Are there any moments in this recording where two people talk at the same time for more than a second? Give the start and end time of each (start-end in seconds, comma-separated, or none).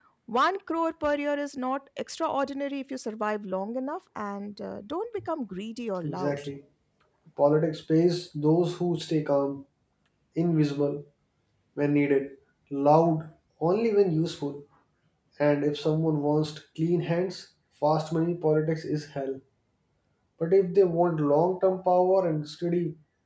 none